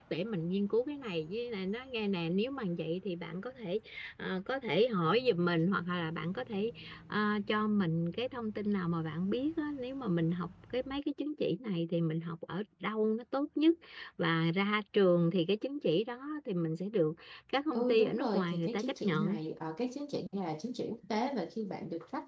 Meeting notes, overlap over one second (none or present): present